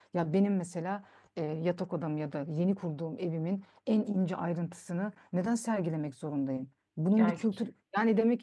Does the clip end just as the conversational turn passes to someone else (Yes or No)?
No